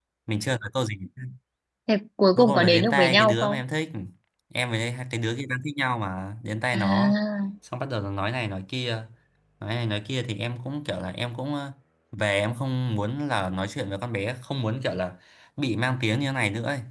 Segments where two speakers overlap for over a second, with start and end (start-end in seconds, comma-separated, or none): 2.4-3.6